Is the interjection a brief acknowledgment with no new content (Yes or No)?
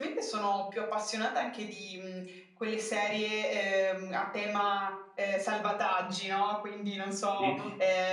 Yes